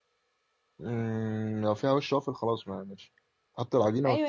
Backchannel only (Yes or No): No